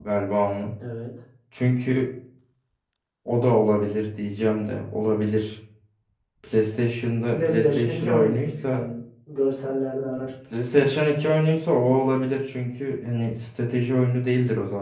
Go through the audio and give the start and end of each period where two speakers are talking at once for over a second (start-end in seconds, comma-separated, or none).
7.3-8.8